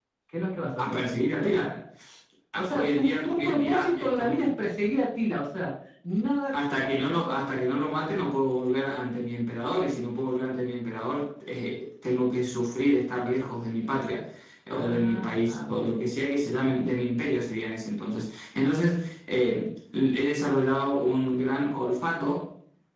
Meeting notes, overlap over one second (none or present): present